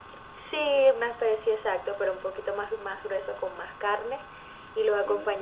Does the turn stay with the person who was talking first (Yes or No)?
Yes